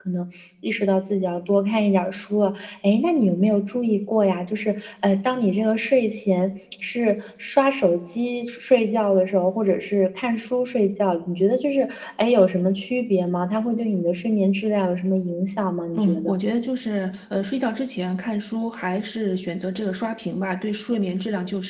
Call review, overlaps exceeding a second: none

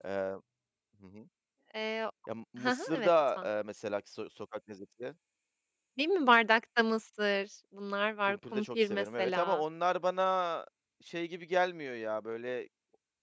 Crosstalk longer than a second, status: present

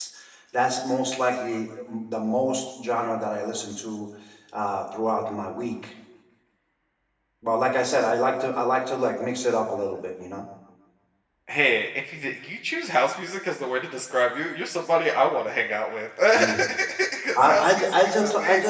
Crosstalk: present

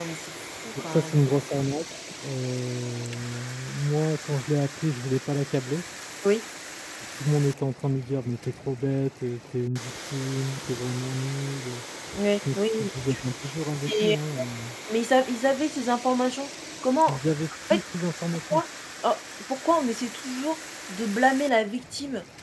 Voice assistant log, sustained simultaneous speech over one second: none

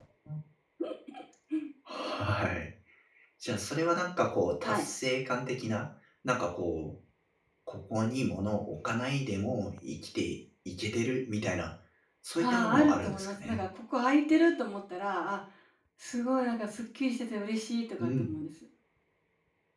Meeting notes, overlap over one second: present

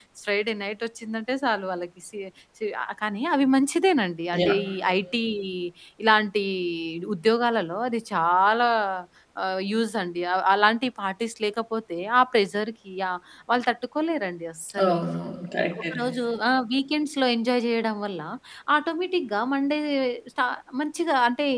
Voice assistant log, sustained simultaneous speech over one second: none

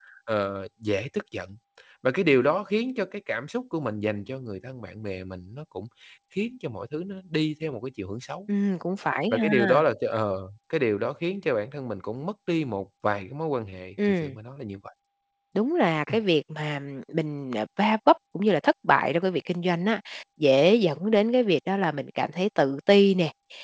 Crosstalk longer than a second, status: none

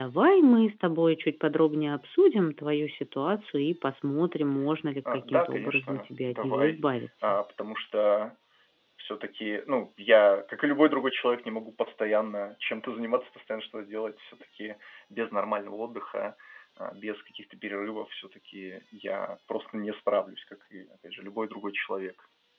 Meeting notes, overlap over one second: present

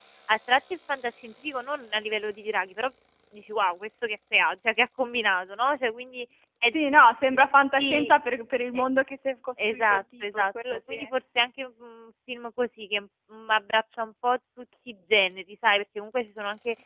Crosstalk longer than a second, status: present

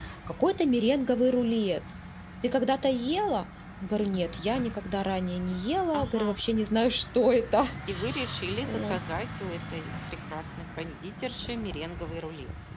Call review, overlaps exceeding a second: none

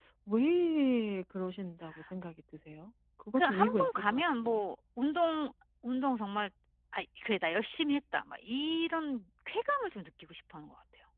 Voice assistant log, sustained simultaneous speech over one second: present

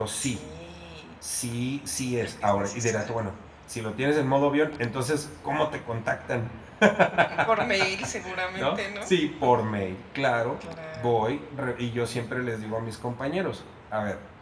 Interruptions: present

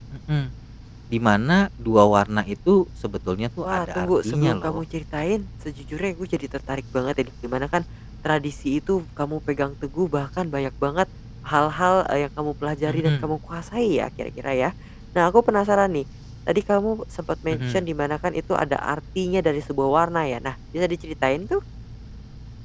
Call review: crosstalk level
present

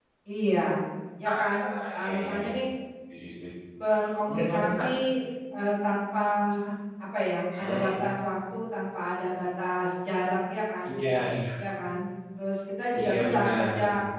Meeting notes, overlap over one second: present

